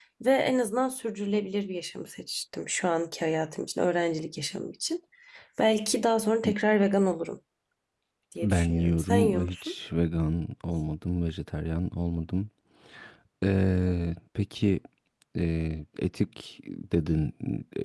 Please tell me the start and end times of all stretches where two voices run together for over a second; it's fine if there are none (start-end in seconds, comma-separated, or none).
8.4-9.7